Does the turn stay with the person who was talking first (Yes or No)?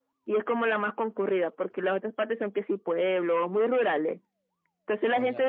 Yes